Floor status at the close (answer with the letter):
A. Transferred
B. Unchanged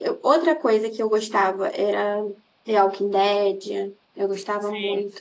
B